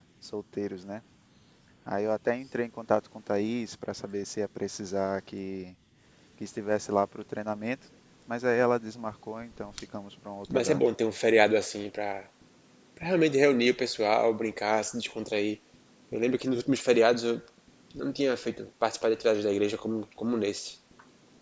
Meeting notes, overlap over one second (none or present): none